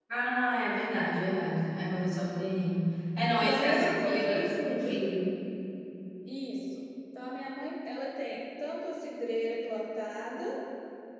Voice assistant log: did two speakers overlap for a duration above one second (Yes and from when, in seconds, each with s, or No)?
Yes, from 3.4 s